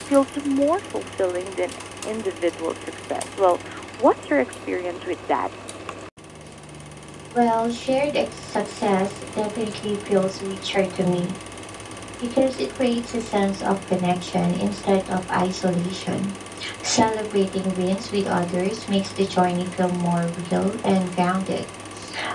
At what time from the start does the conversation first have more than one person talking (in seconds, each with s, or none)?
none